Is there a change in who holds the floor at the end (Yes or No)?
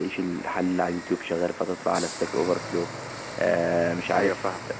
No